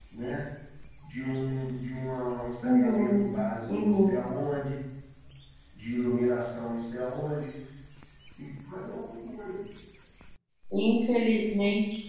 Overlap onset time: 2.6 s

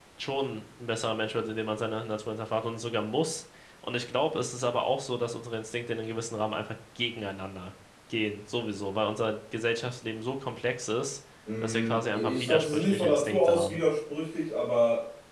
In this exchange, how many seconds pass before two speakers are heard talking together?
11.4 s

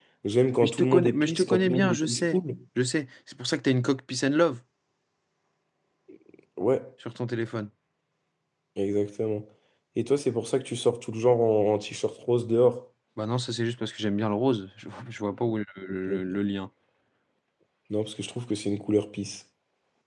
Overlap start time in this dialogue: 0.6 s

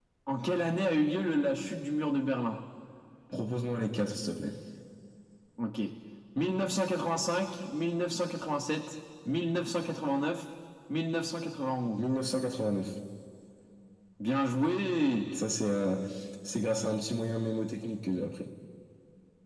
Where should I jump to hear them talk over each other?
none

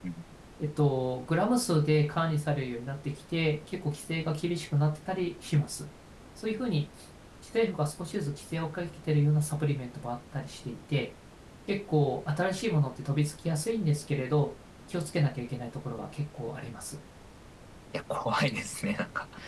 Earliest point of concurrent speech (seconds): none

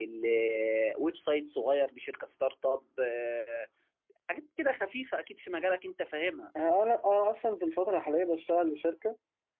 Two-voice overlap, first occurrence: none

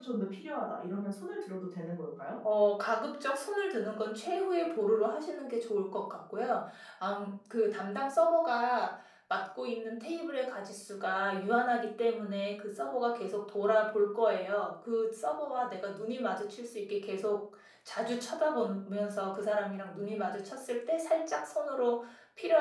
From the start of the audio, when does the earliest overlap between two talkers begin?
none

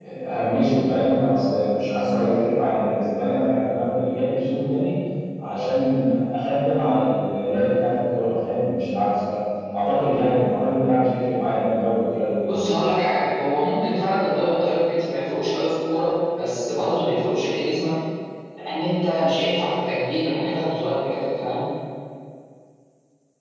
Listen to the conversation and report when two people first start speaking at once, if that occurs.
none

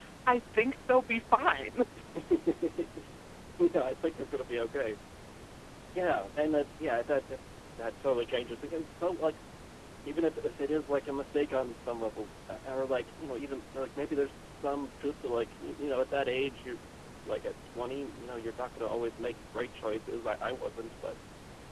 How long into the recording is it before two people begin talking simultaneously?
none

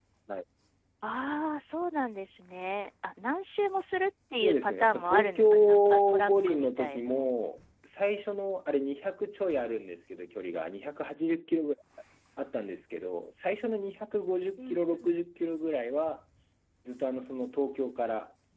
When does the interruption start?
4.4 s

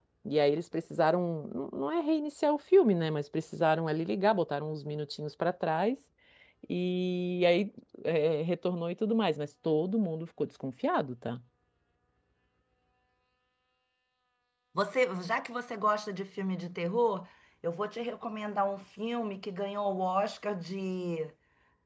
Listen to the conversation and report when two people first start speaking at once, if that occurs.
none

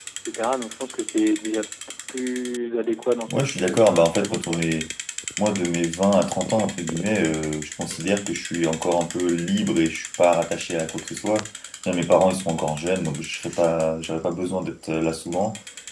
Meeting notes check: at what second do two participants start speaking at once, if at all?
3.3 s

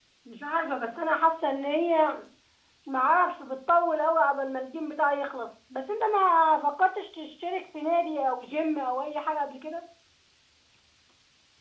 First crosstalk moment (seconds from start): none

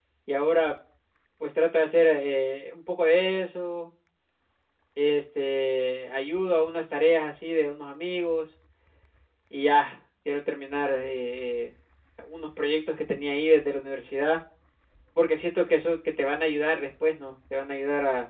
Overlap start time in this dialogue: none

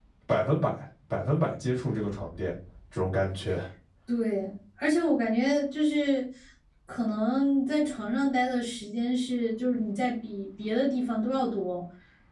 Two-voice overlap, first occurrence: none

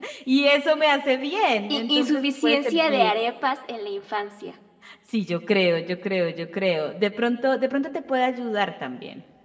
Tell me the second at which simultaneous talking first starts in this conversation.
1.7 s

